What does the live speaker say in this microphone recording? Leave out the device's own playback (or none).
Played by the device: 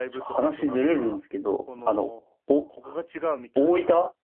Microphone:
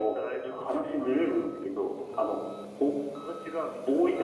none